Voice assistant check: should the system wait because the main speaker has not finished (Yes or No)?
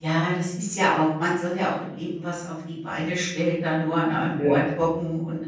Yes